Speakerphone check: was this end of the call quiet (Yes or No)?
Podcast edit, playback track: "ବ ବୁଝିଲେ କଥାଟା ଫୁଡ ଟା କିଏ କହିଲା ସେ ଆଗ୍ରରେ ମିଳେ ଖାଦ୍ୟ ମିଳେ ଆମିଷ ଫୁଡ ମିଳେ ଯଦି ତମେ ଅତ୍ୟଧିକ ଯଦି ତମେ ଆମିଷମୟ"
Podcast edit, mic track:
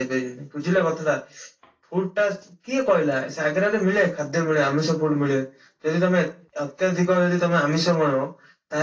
Yes